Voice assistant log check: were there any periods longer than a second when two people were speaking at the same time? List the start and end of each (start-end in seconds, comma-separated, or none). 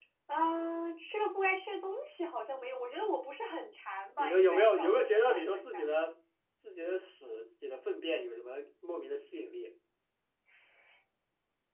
4.2-5.8